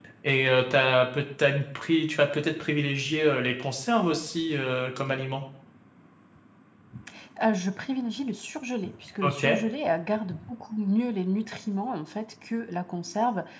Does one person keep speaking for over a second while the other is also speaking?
No

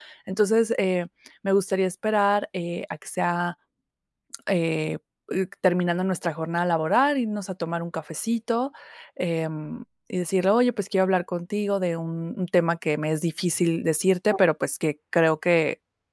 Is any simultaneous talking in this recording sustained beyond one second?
No

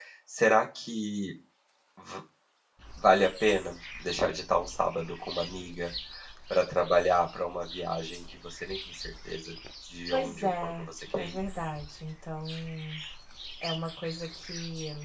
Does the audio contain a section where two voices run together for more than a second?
Yes, from 10.1 s

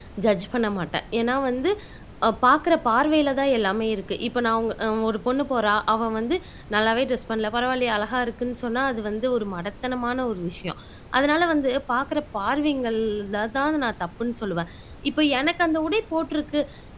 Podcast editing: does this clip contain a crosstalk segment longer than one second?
No

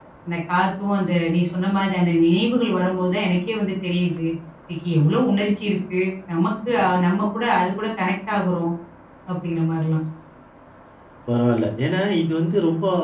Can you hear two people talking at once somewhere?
No

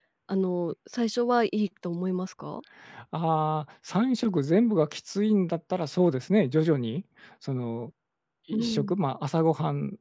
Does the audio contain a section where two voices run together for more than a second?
No

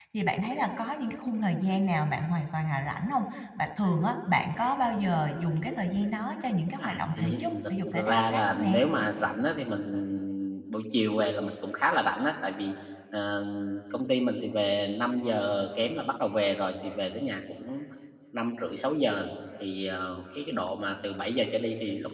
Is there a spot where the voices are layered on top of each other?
Yes, from 6.8 s

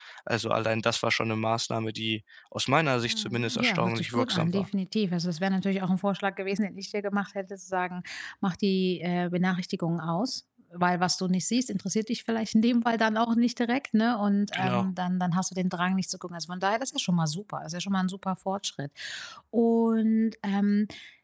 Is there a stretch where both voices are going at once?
Yes, from 3.1 s

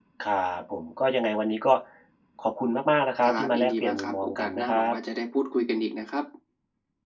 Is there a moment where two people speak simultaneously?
Yes, from 3.2 s

